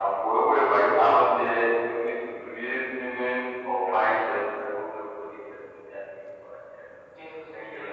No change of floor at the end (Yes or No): No